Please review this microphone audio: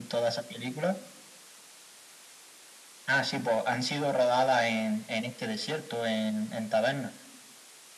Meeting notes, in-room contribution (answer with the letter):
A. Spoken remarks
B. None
B